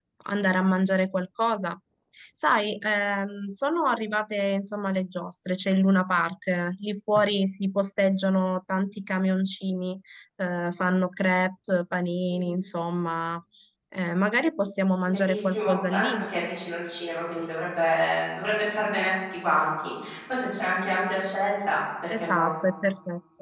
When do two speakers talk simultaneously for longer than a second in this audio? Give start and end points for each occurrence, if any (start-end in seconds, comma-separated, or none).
15.1-16.3